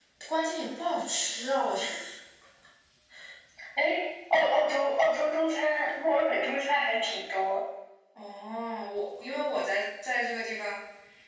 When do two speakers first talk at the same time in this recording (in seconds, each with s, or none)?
none